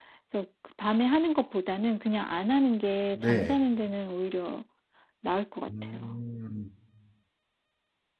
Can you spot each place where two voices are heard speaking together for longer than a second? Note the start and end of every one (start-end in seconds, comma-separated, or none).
none